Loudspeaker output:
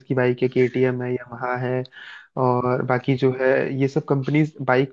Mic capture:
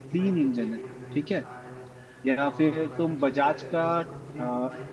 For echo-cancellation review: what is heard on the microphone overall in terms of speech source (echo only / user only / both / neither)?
both